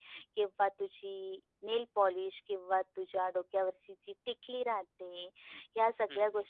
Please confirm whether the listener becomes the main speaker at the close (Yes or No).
No